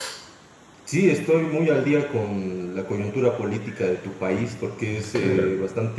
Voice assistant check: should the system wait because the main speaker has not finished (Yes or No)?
Yes